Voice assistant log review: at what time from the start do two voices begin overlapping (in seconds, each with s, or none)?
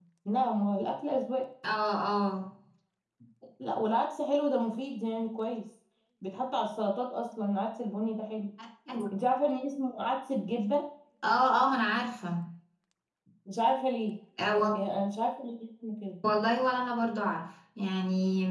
none